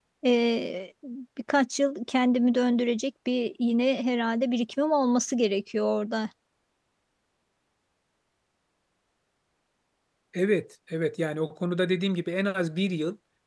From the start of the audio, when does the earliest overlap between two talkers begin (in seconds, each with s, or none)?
none